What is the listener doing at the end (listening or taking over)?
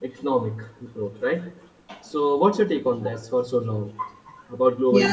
taking over